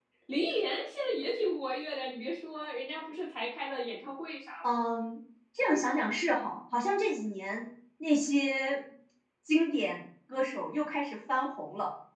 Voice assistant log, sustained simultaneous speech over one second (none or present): none